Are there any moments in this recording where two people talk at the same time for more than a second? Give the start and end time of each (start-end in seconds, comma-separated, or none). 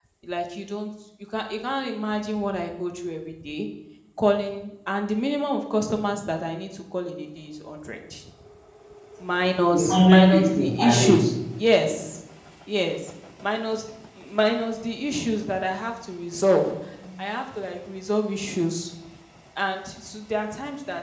9.7-11.2